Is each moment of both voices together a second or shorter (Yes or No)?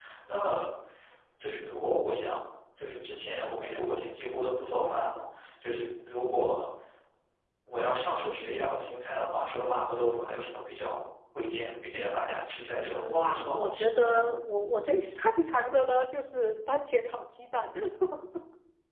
No